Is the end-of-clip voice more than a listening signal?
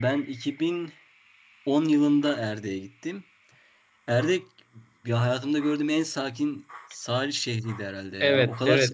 No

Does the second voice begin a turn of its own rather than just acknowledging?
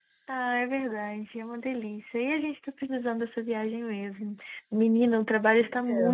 No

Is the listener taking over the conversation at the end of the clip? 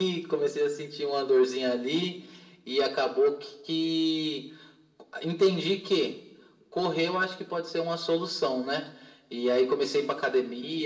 No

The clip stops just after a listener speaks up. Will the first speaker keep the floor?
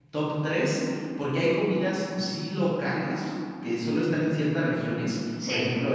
Yes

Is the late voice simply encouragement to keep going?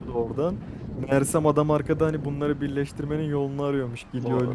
Yes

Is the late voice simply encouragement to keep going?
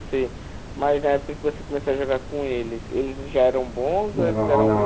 No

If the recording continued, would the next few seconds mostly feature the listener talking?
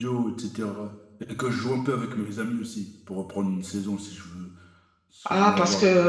Yes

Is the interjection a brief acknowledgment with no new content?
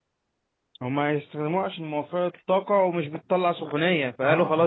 Yes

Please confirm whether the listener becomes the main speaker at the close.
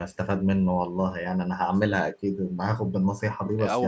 Yes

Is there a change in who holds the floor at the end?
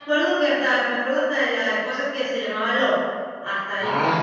Yes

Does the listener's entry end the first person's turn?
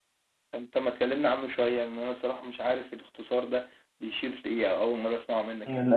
Yes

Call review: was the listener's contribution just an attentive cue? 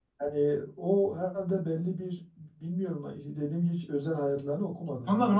No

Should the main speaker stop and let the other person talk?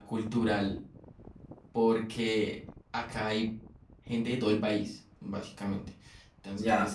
No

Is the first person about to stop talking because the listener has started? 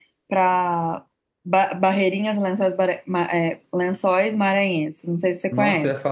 Yes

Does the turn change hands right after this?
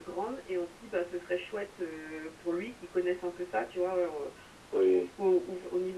No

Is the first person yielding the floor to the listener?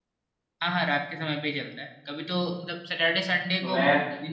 No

